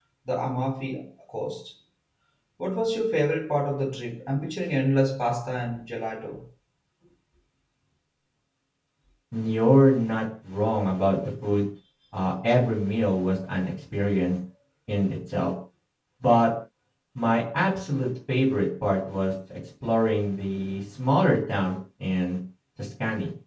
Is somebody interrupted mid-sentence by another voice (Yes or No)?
No